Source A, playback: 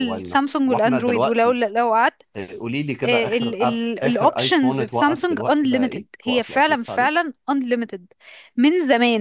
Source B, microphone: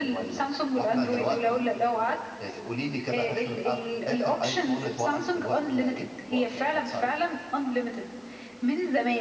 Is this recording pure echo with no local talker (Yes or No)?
No